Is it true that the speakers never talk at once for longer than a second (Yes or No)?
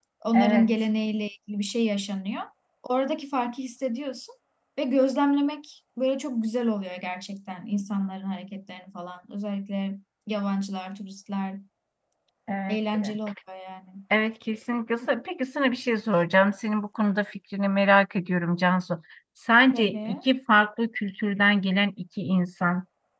Yes